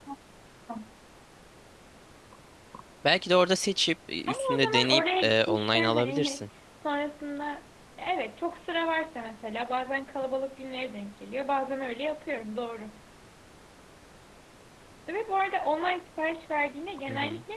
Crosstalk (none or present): present